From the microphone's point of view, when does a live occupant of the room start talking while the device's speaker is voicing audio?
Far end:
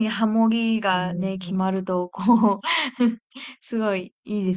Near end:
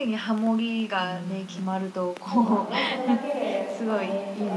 2.2 s

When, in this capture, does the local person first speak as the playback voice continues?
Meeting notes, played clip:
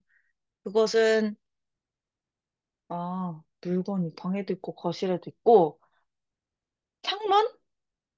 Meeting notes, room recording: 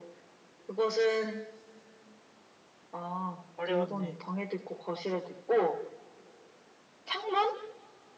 3.6 s

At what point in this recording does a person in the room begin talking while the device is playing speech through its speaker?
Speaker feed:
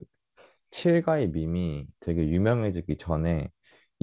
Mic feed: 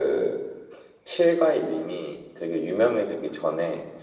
none

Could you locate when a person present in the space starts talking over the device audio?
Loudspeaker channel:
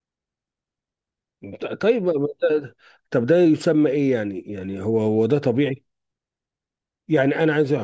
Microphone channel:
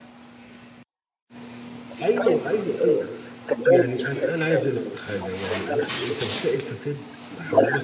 2.0 s

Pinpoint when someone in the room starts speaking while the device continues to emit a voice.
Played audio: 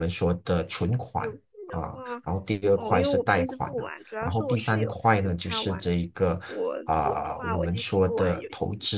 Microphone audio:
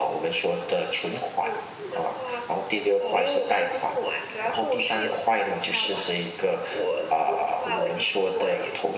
none

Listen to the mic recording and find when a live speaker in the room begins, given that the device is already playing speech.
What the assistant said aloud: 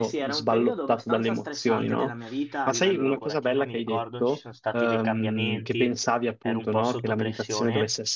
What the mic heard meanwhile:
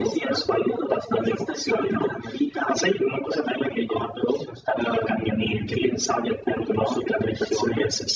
none

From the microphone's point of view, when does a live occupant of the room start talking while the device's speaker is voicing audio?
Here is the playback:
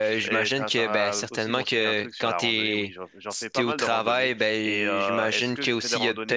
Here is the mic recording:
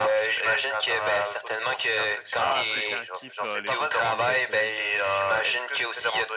2.4 s

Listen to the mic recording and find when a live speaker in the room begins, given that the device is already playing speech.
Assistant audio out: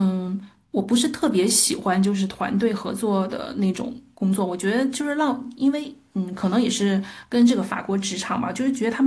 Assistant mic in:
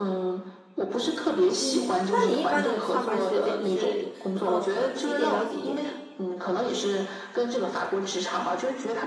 1.6 s

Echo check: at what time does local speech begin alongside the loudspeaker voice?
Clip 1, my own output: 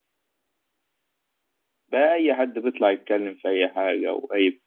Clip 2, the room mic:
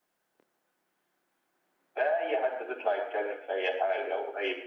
none

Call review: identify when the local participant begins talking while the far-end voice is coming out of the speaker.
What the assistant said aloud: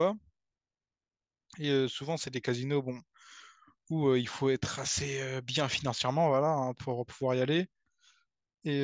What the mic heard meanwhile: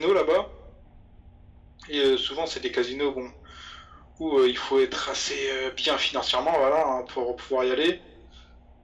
none

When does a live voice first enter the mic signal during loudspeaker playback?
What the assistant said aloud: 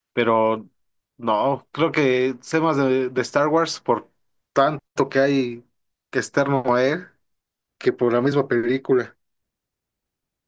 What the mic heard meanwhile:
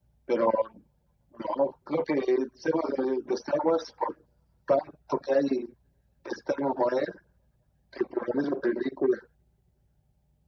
none

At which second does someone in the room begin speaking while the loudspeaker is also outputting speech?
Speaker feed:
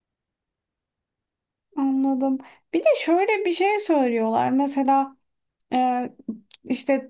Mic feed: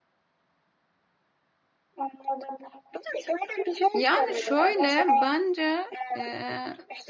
3.9 s

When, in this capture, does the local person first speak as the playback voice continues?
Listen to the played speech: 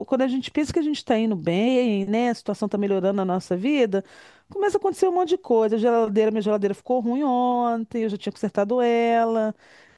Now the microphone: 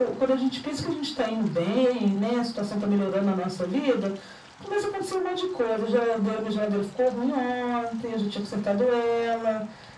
none

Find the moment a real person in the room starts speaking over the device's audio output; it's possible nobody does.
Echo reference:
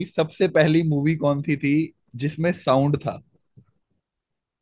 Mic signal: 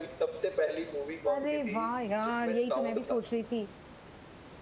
1.3 s

